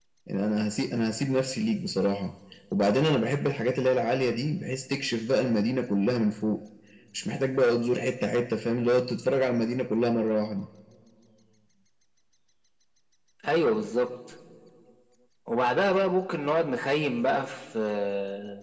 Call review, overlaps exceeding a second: none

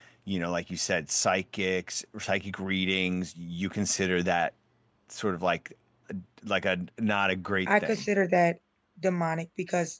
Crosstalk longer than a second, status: none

